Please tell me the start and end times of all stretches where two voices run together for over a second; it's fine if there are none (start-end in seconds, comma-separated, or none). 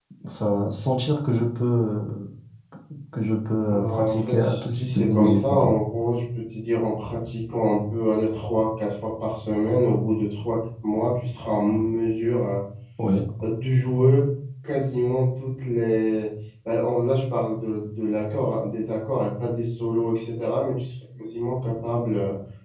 3.7-5.7